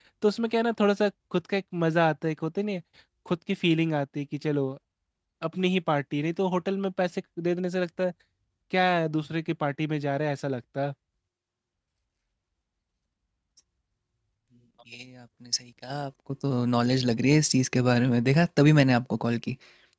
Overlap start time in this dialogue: none

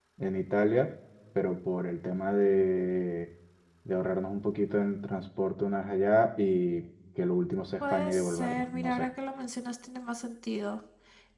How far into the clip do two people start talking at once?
7.8 s

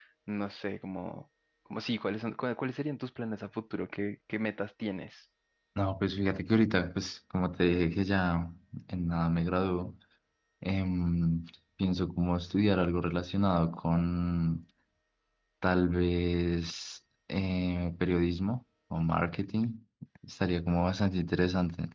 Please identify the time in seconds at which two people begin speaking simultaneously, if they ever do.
none

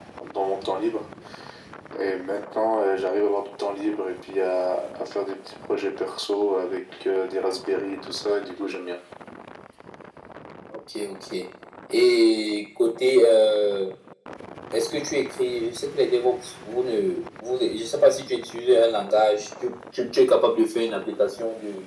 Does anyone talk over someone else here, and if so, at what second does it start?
none

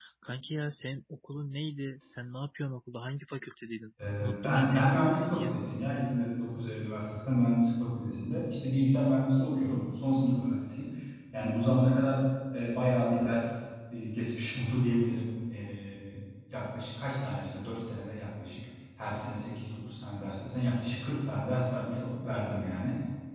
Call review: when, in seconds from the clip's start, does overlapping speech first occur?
4.0 s

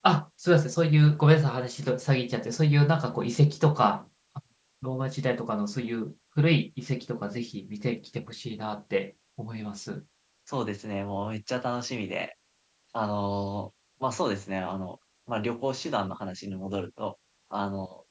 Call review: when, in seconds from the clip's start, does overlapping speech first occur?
none

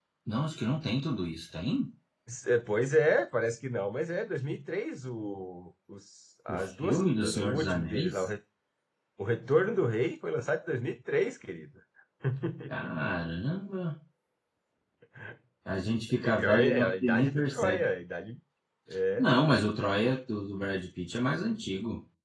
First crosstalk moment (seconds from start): 6.5 s

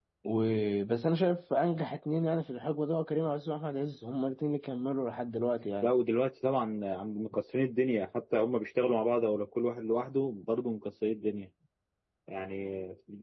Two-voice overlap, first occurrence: none

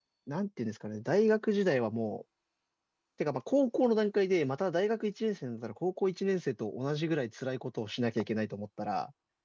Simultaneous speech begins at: none

